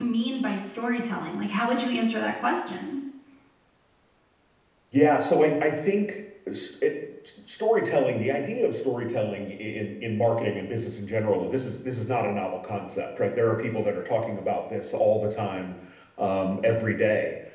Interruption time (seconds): none

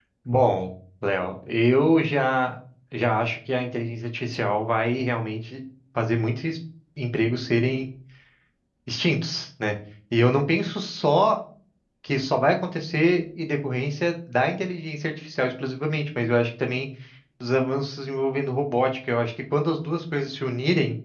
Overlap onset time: none

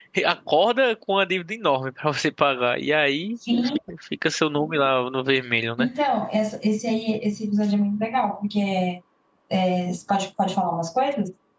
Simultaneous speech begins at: none

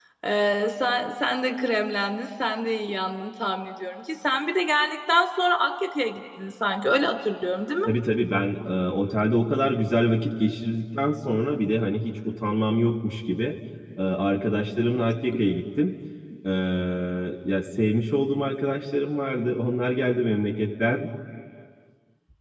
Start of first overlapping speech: none

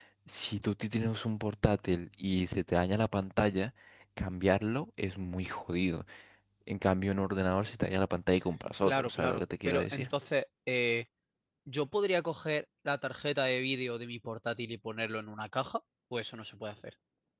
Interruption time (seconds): 9 s

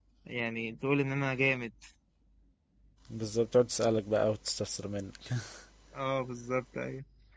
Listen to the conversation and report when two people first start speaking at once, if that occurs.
none

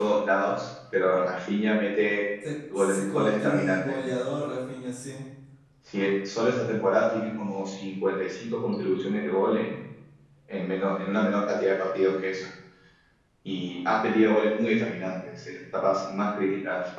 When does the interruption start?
3 s

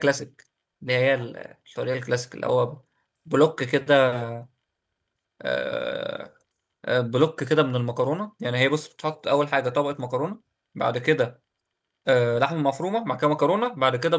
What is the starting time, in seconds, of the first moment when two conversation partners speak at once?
none

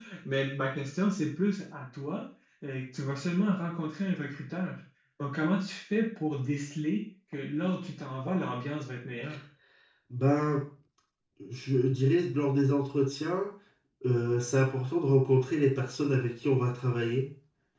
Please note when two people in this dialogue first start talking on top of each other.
none

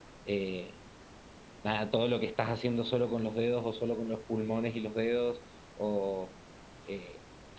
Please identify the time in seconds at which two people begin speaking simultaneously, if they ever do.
none

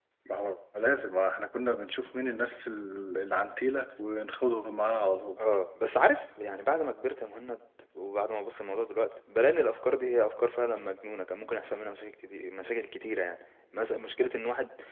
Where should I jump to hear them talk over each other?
none

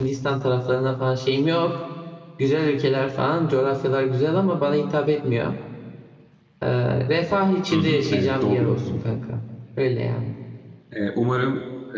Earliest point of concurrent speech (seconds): 8 s

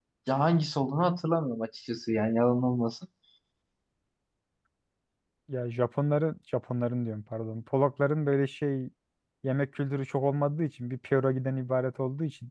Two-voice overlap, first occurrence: none

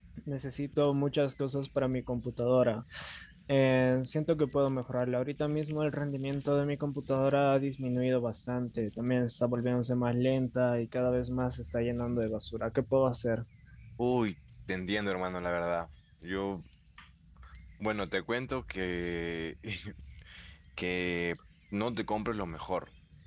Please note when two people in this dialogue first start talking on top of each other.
none

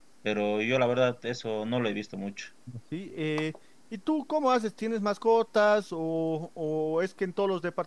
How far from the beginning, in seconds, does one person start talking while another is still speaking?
none

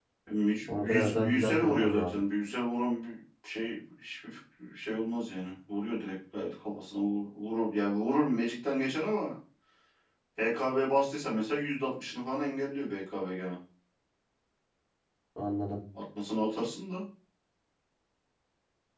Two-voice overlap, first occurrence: 1 s

